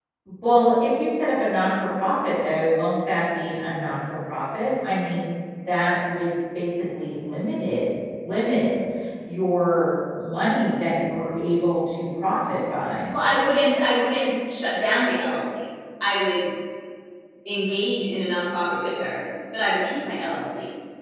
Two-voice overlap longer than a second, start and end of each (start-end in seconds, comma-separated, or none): none